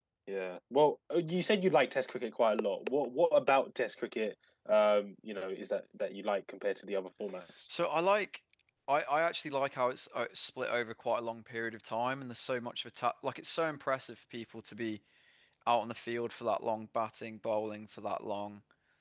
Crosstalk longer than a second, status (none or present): none